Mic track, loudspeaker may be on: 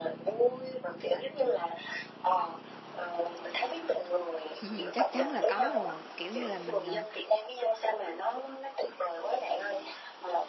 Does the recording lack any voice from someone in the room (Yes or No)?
No